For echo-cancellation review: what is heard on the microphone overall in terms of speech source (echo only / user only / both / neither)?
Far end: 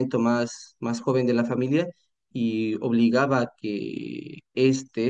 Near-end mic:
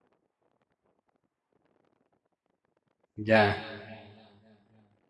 user only